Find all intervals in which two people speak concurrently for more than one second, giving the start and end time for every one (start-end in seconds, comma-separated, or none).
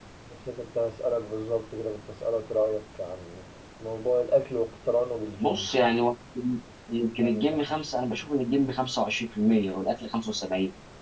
none